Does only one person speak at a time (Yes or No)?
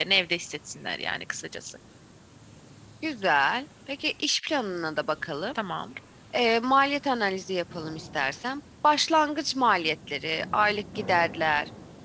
Yes